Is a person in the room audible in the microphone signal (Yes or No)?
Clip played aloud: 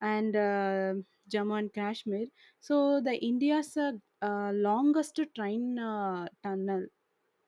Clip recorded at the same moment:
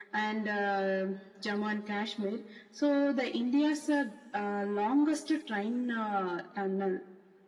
No